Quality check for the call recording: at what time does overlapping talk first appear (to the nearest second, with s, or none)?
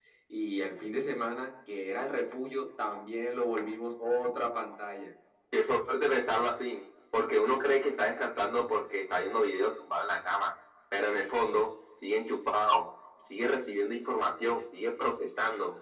none